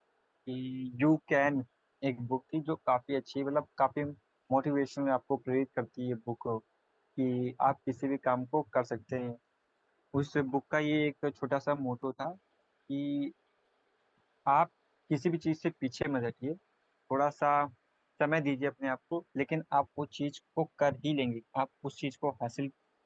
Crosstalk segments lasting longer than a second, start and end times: none

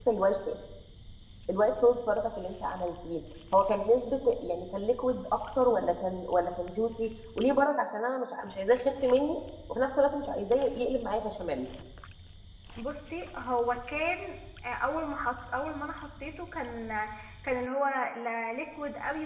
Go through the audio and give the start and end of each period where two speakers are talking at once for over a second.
none

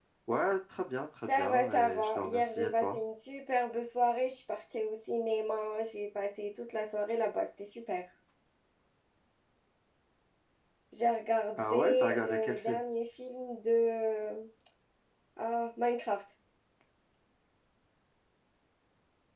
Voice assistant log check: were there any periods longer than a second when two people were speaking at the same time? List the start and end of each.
1.3-3.0, 11.6-12.8

